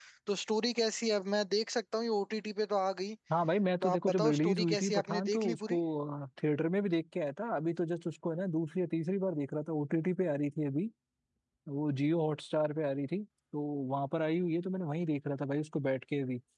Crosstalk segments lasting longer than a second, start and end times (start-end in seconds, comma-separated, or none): 3.8-5.8